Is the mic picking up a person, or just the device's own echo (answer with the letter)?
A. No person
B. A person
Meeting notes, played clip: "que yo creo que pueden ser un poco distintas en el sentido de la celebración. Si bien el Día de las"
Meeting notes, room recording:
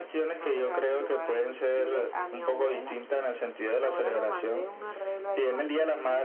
B